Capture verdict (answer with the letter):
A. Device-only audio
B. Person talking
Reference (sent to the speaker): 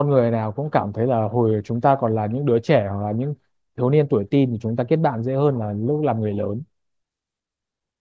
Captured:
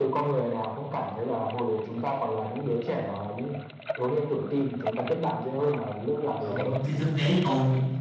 B